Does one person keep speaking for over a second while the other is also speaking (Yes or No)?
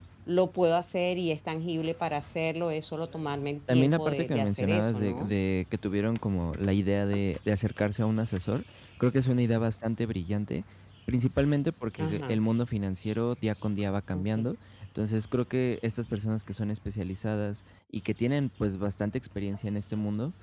Yes